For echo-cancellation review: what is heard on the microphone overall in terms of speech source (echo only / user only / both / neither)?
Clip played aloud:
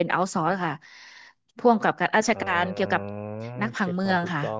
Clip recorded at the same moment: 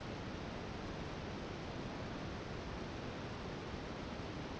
neither